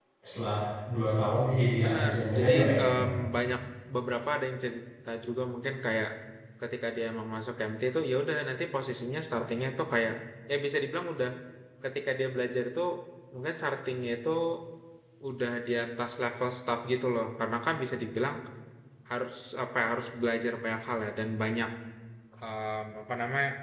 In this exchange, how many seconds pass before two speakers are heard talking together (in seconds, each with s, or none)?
1.8 s